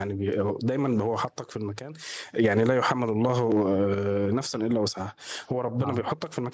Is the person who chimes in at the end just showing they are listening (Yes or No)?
Yes